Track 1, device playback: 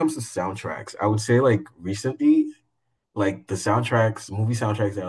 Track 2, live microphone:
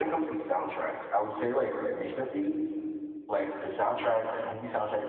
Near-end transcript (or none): none